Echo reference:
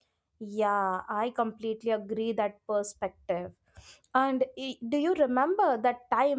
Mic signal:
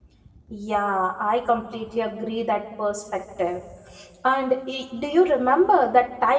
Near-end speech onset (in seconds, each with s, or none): none